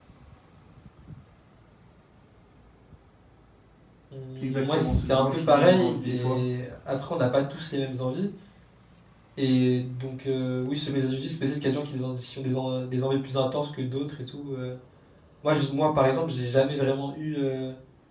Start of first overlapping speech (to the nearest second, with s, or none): 5 s